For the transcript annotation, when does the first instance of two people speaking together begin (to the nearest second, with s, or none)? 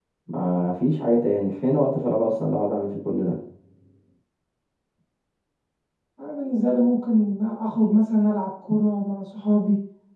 none